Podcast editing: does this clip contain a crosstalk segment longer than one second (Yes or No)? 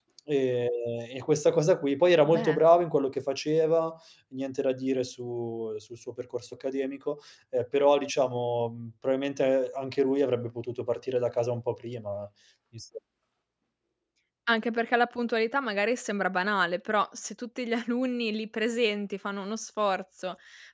No